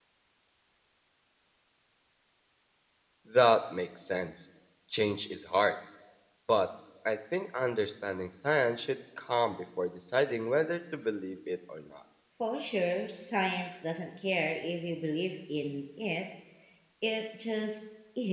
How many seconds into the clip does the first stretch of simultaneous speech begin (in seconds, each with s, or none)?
none